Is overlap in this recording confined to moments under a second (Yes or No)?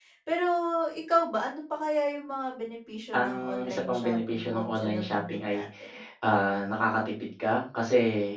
No